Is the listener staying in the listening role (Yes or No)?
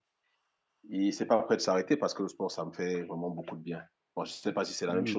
No